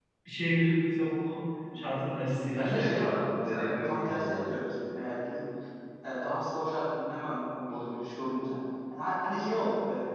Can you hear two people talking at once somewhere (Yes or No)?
Yes